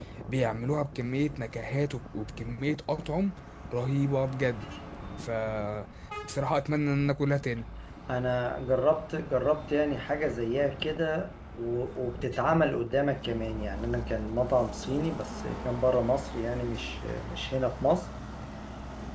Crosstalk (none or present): none